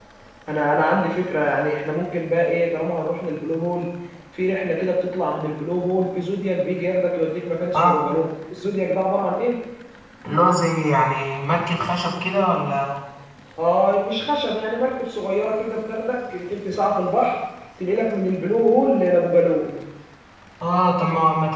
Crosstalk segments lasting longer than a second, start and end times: none

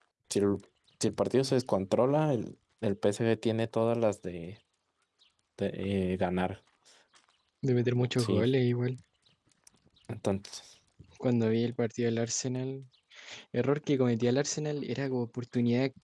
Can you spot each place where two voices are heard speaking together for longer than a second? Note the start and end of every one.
none

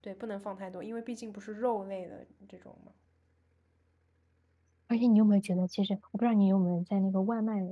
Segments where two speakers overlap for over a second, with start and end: none

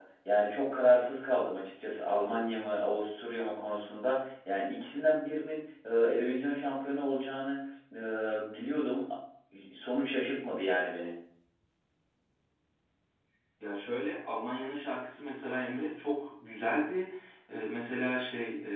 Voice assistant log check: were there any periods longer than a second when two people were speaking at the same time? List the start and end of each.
none

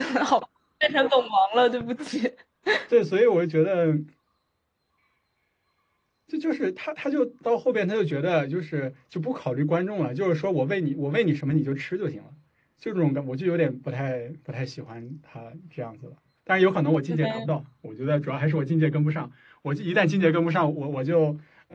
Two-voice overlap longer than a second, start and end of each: none

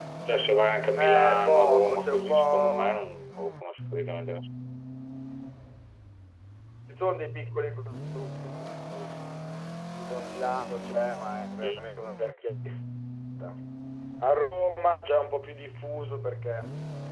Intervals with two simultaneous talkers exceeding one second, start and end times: 1.0-3.0

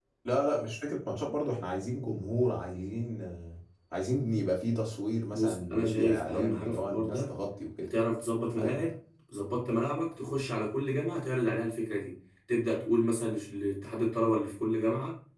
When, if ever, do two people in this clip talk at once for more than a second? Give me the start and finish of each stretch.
5.3-7.3

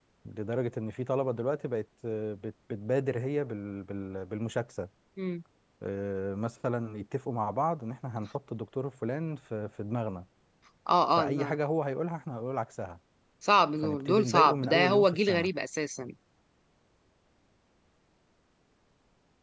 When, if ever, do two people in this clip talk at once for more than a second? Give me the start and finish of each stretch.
13.8-15.5

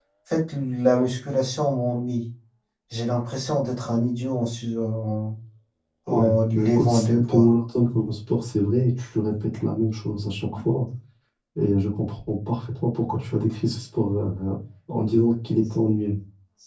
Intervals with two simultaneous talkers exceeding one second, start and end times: 6.1-7.5

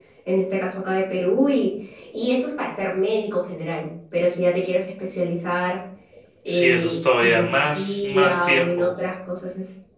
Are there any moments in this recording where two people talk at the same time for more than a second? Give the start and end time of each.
6.4-8.9

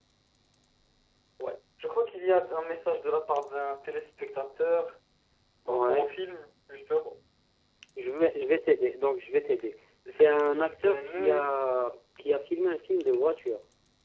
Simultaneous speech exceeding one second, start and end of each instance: 10.1-11.5

